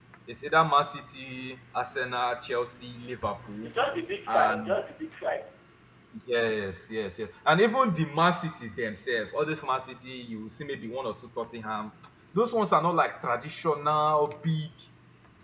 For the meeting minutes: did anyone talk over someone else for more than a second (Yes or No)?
No